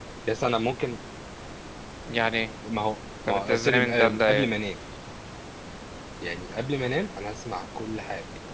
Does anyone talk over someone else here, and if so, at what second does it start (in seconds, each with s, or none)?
3.3 s